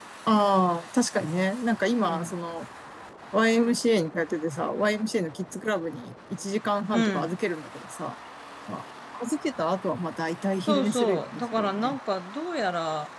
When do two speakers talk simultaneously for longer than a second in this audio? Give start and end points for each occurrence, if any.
10.7-12.0

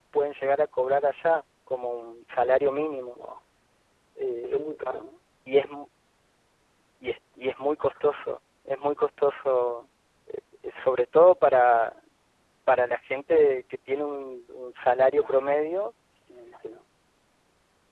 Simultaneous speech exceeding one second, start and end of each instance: none

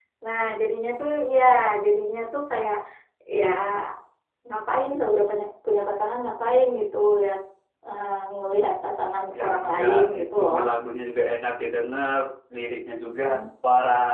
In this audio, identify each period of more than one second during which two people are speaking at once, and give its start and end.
9.4-10.6

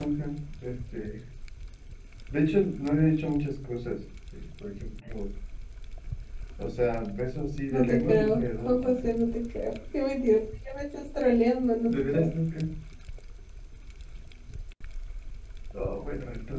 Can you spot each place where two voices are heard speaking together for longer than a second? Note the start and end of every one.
7.7-9.1

